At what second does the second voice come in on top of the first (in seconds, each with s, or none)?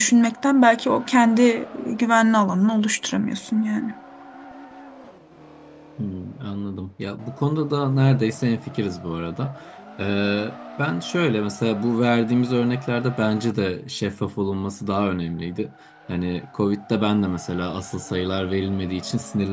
none